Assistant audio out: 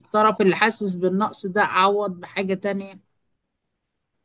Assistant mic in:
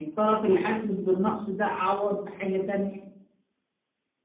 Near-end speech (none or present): none